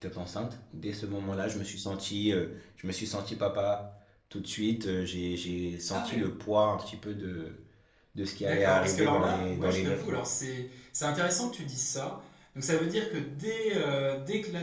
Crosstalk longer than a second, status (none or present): present